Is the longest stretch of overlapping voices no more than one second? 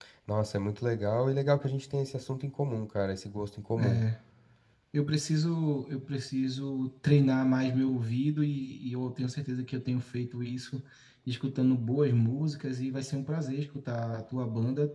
Yes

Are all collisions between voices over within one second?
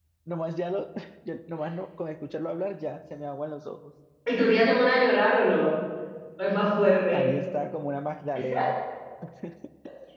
Yes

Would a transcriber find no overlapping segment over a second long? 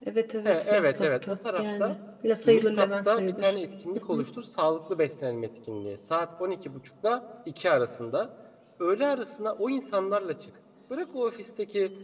No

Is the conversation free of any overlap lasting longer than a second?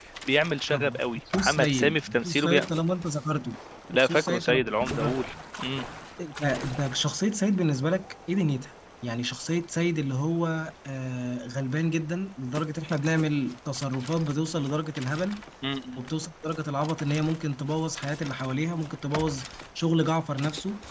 No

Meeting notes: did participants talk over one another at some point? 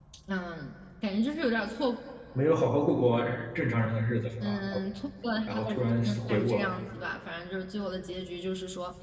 Yes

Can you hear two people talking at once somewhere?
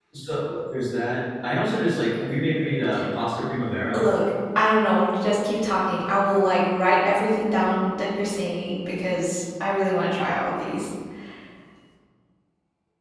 No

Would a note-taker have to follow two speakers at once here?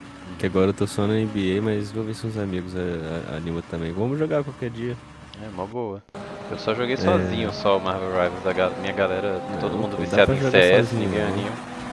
Yes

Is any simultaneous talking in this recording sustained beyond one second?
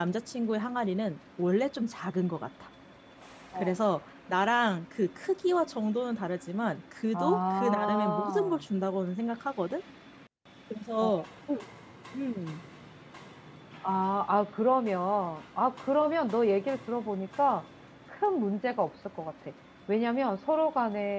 Yes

